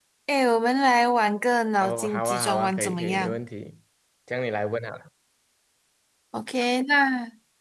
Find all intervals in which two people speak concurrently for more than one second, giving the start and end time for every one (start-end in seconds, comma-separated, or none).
1.8-3.4